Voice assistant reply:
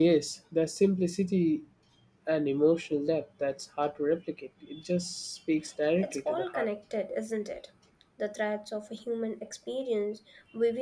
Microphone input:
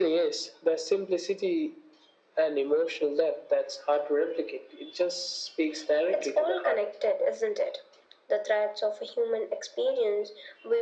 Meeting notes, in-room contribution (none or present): none